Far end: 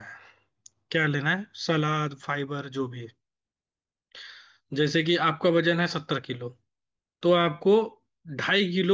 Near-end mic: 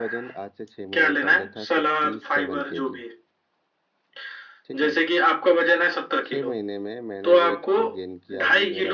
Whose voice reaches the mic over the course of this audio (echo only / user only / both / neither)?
both